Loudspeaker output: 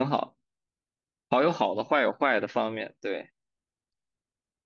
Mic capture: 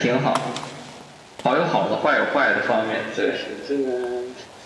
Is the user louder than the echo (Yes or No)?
No